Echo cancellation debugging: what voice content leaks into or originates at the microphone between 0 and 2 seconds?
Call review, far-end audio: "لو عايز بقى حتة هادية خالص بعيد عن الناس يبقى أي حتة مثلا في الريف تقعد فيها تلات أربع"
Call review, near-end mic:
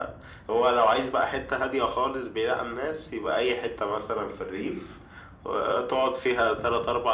echo only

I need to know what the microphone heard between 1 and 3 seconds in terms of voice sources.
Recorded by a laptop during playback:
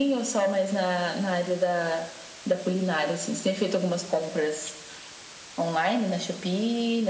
echo only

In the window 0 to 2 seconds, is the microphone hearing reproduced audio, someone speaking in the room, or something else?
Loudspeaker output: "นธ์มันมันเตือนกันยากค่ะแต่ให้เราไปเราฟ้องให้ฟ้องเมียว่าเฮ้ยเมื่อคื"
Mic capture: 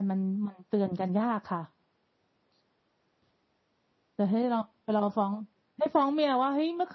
echo only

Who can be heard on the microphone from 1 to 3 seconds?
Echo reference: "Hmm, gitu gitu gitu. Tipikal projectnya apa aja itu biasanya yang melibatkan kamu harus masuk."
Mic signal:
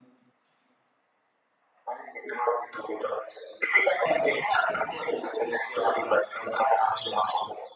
echo only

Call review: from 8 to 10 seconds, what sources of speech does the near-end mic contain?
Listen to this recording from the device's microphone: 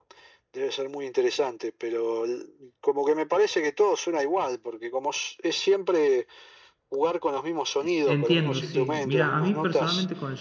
both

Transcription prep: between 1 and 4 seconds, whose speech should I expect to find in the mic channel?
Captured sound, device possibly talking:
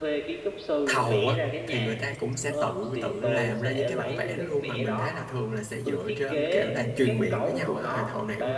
both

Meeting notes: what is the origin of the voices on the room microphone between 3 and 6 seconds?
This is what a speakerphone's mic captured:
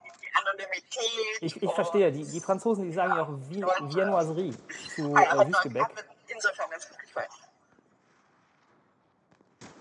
both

